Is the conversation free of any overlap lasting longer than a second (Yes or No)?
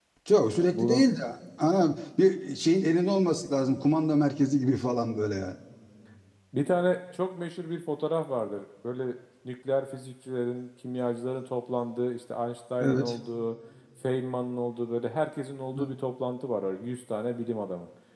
Yes